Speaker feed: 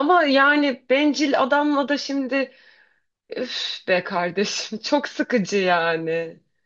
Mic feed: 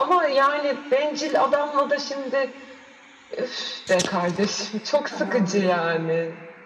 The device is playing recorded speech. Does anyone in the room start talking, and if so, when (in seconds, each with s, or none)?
5.0 s